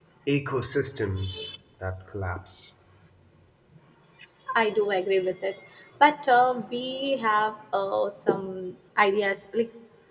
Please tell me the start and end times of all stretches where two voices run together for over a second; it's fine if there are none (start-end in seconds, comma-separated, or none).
none